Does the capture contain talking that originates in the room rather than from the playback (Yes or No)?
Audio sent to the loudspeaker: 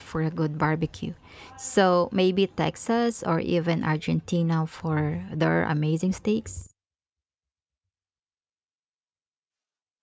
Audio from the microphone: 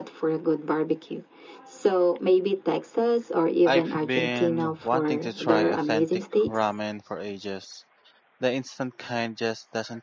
Yes